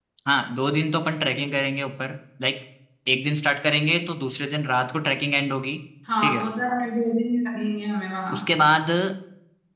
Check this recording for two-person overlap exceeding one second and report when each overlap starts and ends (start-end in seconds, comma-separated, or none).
none